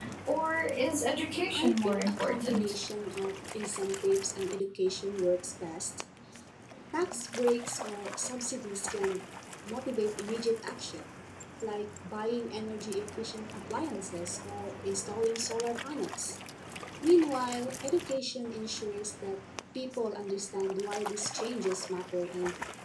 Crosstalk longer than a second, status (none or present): present